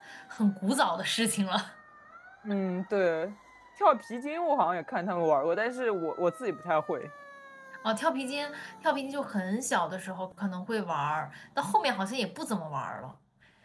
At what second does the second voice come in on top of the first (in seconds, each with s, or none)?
none